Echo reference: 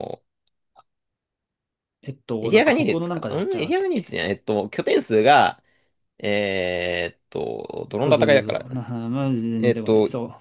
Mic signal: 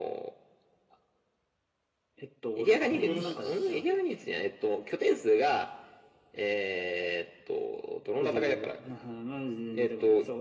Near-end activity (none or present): present